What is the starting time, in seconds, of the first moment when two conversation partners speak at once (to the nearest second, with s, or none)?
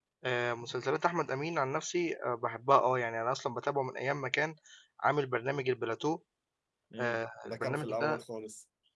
7 s